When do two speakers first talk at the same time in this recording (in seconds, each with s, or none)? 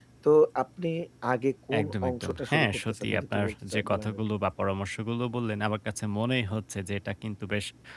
1.8 s